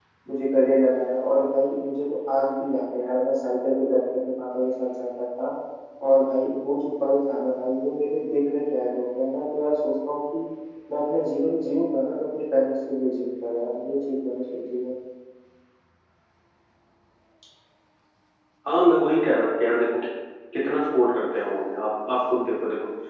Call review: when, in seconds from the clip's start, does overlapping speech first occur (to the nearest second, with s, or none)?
none